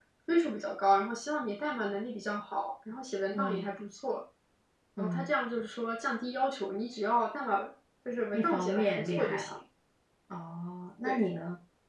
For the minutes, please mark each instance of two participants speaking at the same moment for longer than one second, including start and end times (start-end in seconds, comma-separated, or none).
8.3-9.6